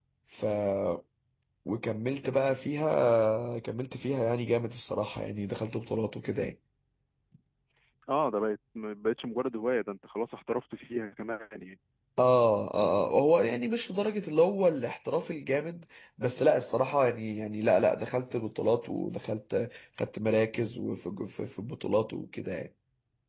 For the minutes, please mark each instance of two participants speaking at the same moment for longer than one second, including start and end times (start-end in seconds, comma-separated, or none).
none